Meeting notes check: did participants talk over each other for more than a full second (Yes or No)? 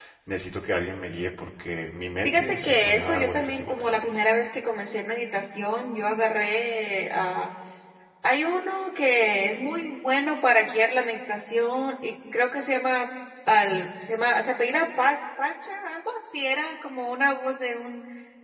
Yes